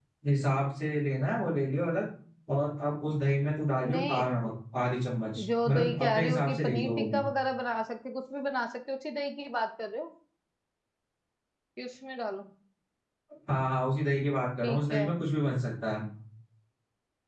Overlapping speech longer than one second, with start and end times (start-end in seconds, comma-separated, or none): 5.6-7.2